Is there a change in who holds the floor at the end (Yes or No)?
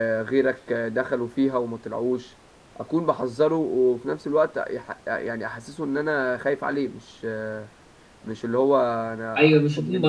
Yes